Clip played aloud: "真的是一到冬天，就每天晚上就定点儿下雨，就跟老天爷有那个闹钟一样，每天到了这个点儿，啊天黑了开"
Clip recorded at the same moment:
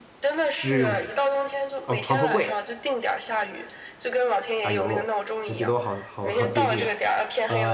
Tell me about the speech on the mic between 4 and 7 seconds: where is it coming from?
both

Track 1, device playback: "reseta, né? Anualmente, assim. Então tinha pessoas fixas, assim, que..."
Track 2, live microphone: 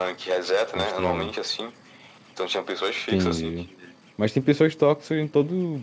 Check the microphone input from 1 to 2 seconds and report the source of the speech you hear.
both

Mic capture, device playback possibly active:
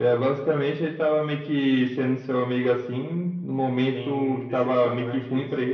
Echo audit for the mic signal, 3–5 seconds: both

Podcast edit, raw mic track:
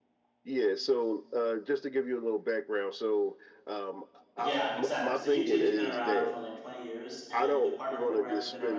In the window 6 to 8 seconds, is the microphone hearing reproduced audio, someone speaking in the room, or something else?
both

